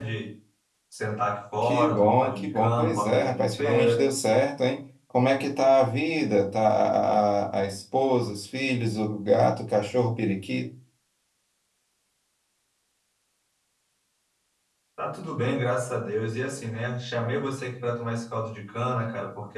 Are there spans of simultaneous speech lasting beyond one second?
Yes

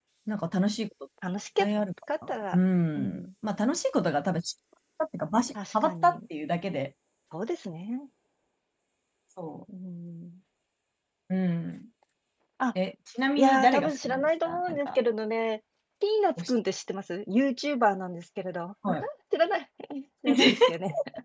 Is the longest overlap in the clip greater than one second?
Yes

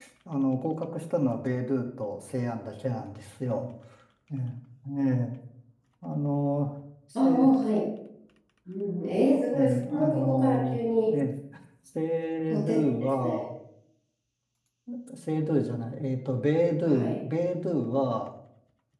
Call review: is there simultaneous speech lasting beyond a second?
Yes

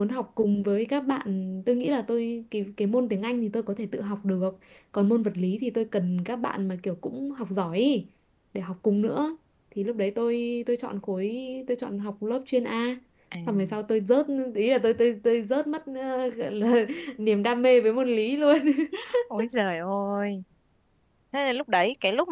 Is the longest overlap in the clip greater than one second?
No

